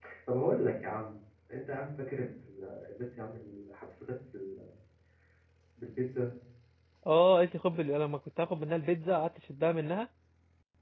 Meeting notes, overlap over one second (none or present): none